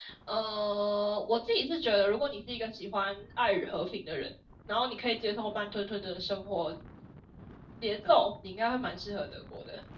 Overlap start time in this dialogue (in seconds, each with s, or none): none